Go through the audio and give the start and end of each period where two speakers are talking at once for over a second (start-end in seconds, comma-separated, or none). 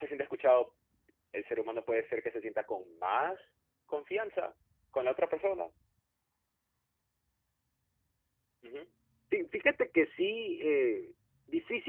none